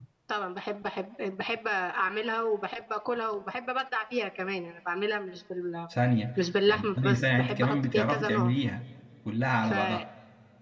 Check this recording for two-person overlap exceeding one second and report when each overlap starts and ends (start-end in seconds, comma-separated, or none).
6.7-8.5